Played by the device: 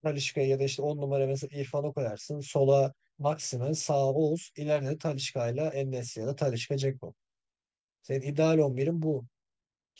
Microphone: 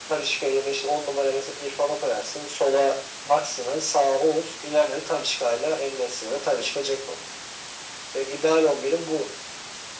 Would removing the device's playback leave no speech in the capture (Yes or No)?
Yes